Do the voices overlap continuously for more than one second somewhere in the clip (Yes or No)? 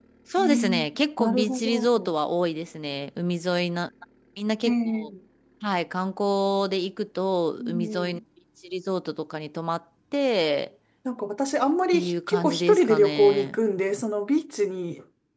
Yes